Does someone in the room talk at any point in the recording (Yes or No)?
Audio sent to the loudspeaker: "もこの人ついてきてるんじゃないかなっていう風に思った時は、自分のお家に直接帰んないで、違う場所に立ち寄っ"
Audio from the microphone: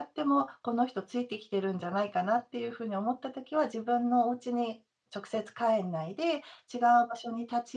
No